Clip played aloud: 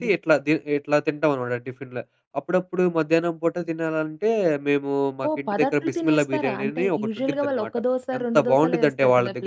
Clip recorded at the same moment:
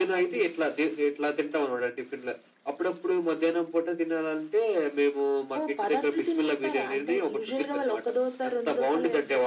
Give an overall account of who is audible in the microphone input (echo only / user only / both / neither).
echo only